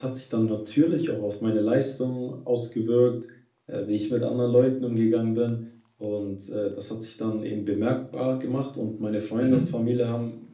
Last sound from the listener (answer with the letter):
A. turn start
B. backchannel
B